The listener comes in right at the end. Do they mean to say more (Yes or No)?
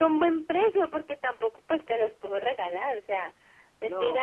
Yes